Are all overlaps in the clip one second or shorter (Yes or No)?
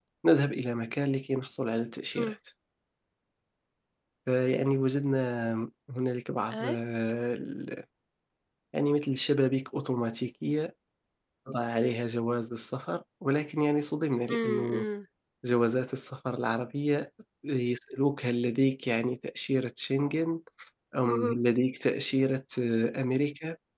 Yes